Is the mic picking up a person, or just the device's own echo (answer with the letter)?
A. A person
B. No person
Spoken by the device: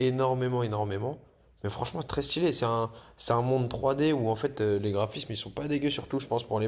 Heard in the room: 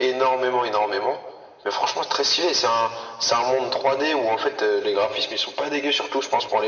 B